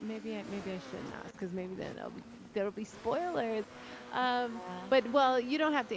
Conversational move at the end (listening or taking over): listening